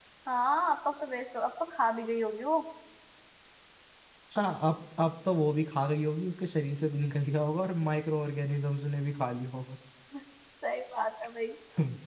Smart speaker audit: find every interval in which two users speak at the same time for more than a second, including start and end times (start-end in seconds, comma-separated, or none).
none